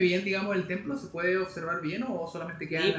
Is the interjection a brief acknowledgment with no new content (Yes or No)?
No